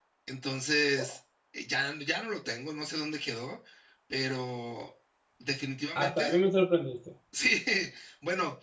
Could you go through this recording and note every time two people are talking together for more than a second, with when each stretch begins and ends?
none

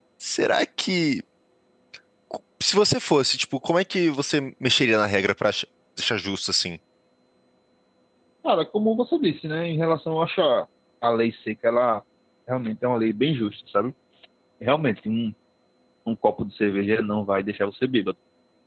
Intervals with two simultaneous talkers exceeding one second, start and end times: none

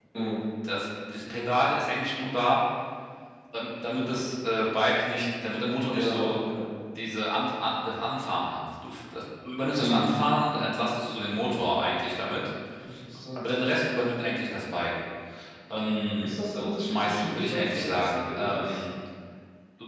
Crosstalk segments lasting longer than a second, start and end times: 16.8-18.8

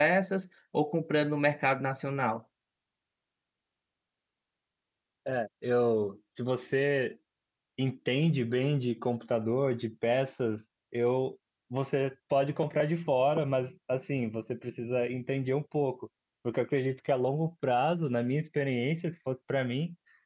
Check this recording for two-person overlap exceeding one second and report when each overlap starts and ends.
none

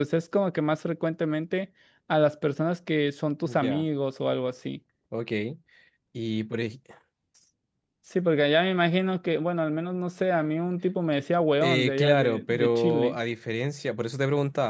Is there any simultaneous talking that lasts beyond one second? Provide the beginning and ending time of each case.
11.6-13.2

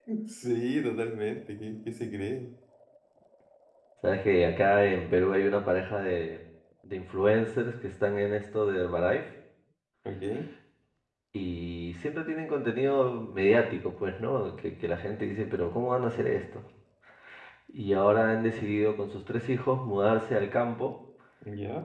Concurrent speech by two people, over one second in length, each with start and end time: none

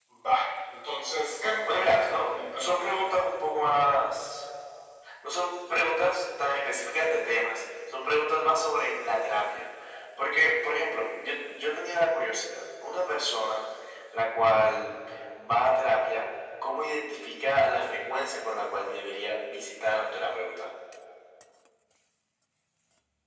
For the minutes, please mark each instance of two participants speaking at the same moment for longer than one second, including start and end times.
1.6-3.1

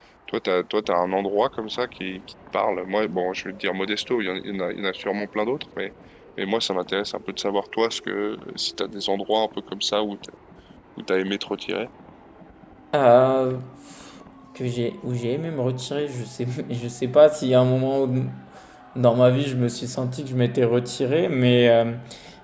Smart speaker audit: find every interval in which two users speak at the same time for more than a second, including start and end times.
none

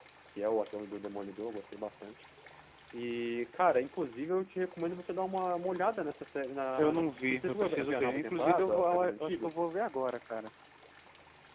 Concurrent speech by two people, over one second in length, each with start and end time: 6.8-9.6

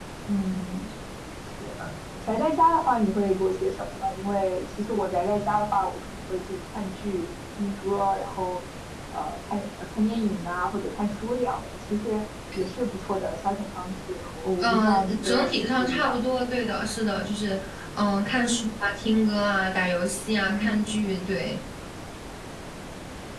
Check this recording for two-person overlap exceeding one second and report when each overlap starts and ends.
14.6-16.2

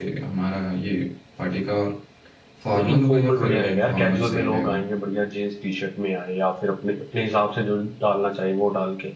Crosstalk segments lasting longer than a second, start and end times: 2.8-4.8

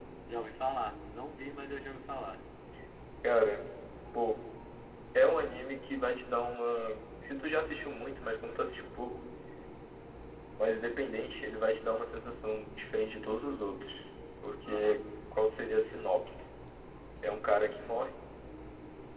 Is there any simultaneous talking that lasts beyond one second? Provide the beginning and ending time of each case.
none

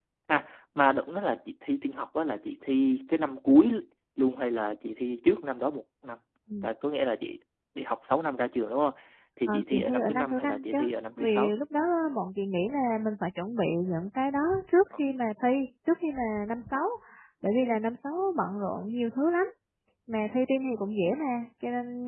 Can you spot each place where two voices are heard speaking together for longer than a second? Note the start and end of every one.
9.5-10.8

